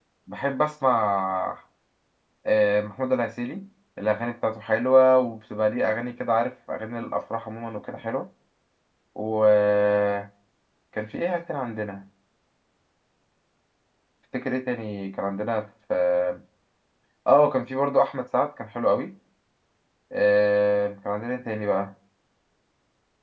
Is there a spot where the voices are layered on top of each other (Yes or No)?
No